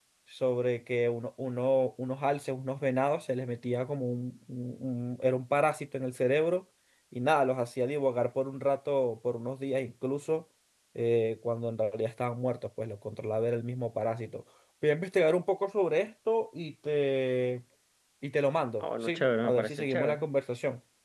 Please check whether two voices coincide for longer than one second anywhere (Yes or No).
Yes